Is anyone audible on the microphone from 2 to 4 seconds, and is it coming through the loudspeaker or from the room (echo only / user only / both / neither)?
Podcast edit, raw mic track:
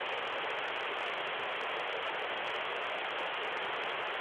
neither